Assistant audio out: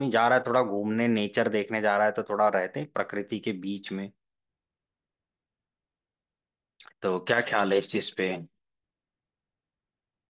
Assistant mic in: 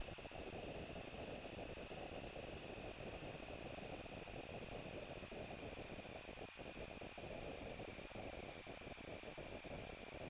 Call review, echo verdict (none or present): none